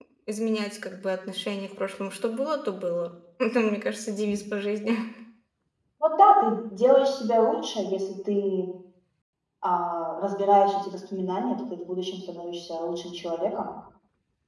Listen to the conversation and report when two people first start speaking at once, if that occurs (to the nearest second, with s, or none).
none